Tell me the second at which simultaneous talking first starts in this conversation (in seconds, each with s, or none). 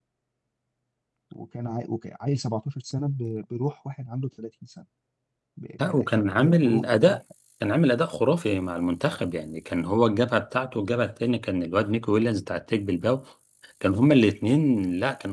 5.9 s